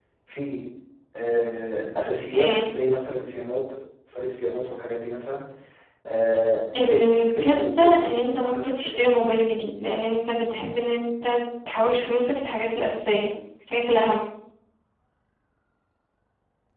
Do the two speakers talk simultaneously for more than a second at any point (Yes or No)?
Yes